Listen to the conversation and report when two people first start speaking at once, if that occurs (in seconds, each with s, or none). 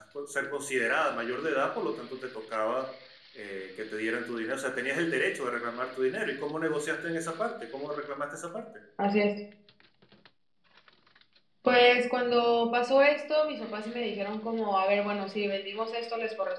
none